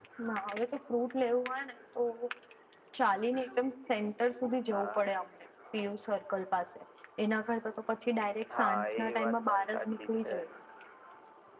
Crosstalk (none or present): present